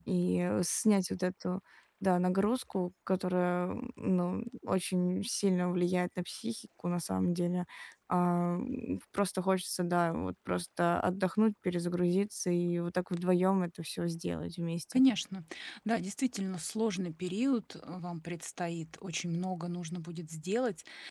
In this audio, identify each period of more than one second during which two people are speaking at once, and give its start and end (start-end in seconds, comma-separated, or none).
none